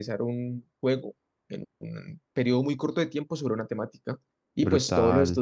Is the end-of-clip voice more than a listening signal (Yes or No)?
No